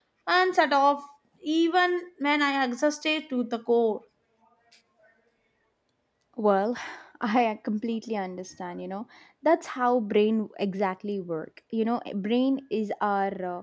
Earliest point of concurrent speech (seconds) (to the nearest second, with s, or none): none